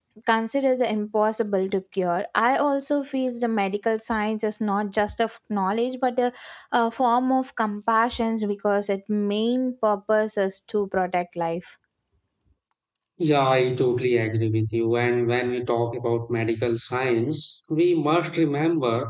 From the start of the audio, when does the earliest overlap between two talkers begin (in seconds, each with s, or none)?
none